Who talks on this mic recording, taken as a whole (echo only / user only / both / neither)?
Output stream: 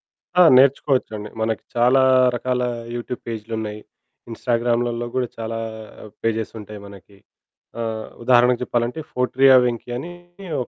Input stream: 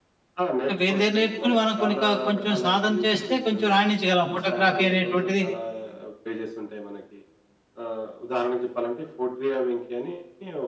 both